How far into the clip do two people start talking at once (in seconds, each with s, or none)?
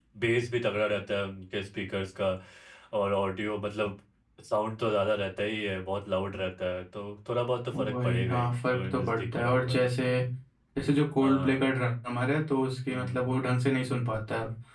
7.7 s